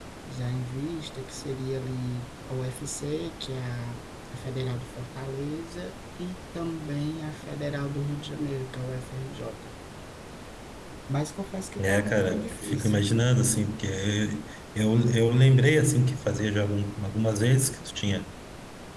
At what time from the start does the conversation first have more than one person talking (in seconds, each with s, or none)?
11.8 s